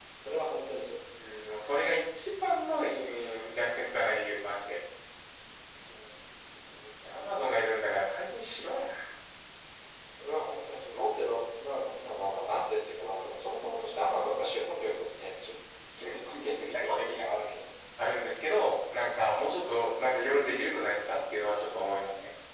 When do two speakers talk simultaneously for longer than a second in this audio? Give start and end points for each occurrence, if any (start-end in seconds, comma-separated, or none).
16.0-17.2